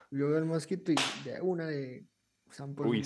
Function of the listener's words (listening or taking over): taking over